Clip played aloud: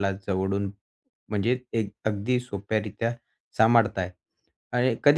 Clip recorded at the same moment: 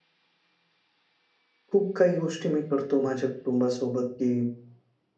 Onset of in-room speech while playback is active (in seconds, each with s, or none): 1.7 s